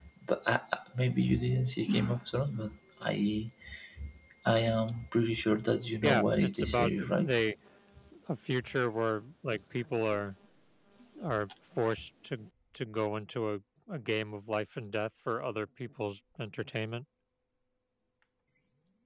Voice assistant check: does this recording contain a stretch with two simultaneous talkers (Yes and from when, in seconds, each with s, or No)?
Yes, from 6.0 s